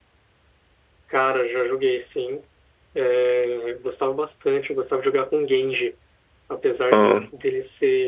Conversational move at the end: listening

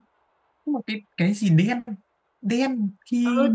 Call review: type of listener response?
taking over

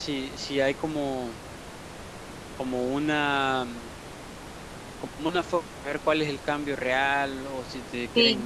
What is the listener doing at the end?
taking over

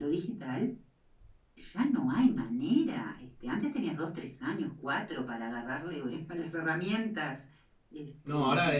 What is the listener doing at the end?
taking over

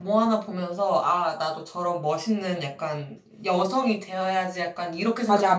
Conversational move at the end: taking over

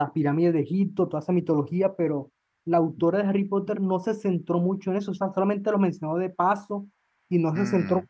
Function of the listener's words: listening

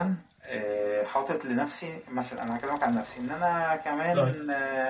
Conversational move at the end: listening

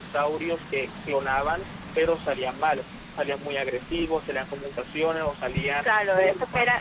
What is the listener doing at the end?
taking over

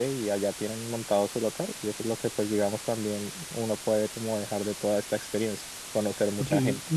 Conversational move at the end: taking over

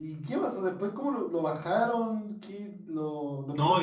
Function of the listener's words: taking over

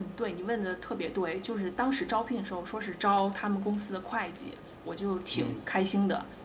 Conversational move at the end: listening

